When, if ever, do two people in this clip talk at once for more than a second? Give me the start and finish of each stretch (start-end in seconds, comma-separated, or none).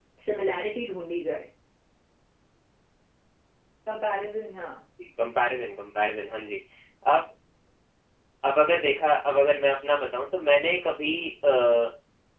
none